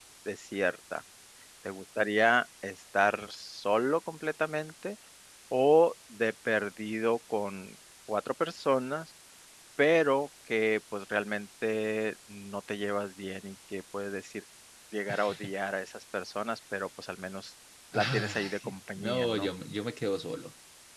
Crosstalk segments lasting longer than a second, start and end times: 17.9-19.5

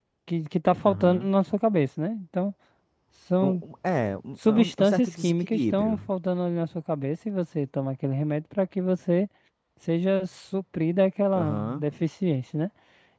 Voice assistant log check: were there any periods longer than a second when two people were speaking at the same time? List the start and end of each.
4.5-6.1

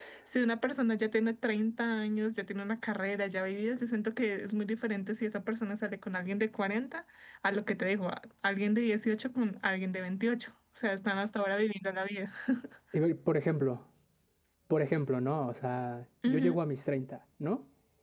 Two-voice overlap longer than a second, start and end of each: none

